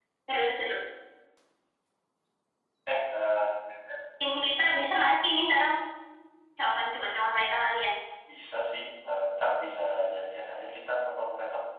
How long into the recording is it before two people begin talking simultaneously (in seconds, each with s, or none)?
none